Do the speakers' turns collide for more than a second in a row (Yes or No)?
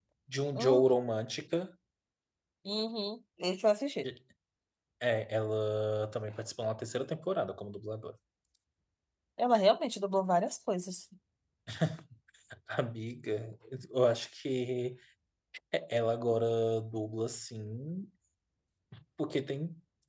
No